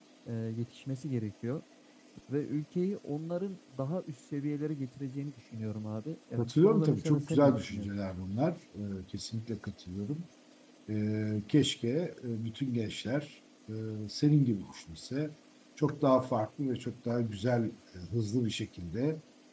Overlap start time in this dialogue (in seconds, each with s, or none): 6.4 s